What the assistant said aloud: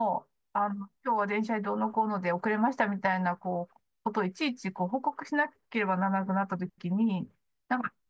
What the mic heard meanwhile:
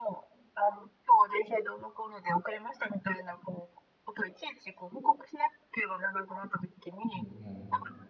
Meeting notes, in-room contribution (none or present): present